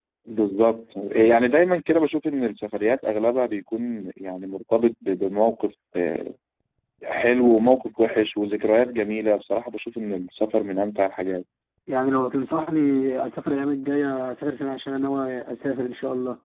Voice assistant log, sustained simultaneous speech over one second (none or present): none